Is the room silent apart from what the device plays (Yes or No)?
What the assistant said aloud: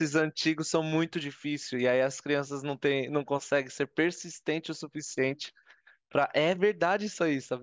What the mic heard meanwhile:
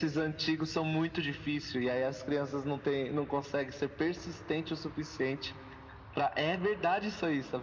Yes